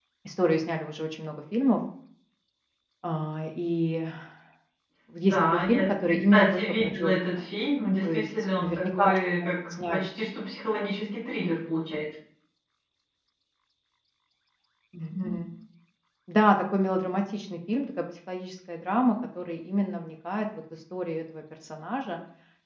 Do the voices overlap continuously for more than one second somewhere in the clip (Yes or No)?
Yes